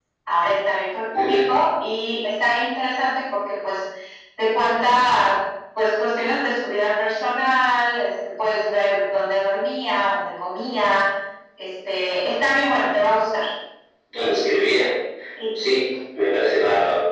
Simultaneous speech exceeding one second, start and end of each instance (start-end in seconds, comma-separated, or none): none